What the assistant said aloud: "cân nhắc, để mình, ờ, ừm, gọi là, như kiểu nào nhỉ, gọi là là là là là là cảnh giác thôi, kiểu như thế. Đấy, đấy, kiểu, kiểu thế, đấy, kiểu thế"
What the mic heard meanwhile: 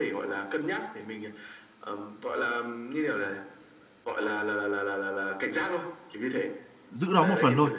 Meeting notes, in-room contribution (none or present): present